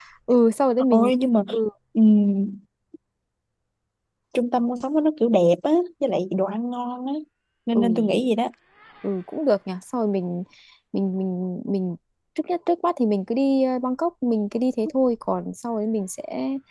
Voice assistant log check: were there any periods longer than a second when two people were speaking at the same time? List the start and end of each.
none

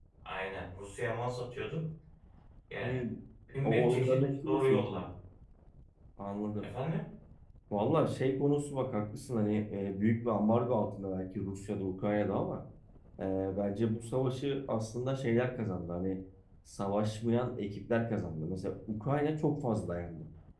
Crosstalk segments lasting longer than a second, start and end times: 3.6-5.1

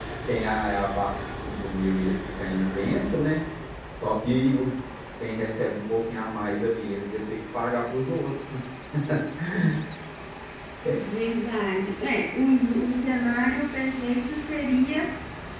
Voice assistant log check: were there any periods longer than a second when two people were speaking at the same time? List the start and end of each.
none

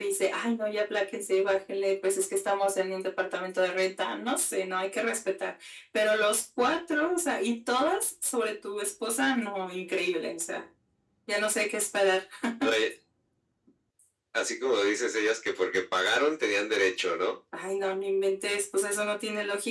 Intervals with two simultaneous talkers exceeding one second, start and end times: none

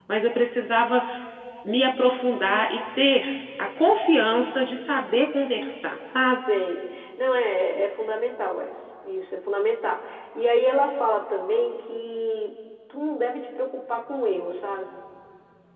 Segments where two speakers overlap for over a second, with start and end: none

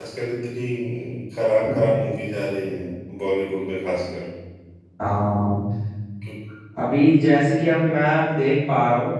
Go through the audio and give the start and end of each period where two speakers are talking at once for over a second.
none

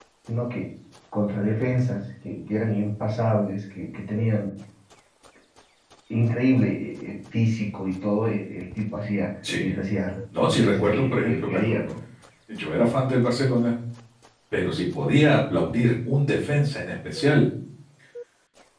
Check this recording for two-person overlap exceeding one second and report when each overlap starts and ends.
10.5-11.7

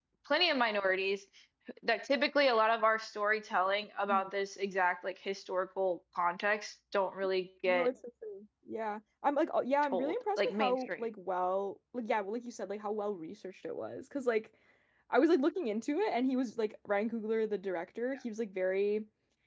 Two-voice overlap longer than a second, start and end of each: 9.8-11.1

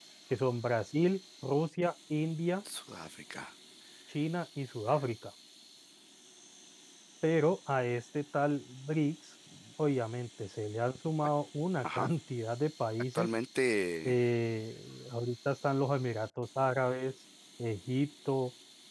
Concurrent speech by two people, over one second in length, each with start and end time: none

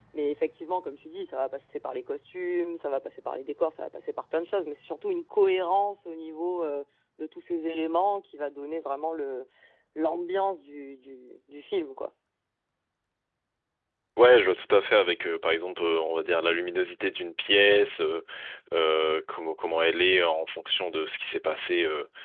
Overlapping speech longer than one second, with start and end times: none

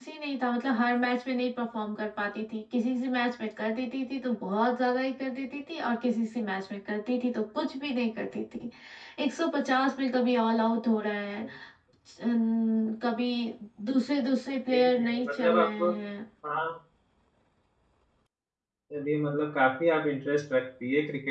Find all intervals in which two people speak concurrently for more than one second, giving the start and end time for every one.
14.7-15.9

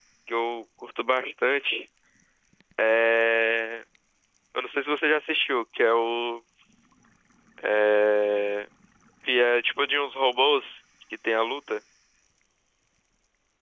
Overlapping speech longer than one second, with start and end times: none

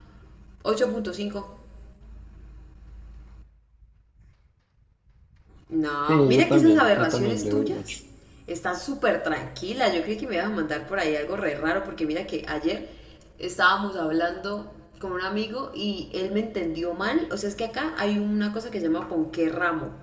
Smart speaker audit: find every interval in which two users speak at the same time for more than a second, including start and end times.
6.1-8.0

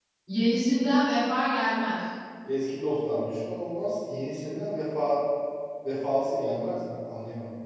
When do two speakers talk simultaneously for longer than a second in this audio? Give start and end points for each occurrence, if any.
none

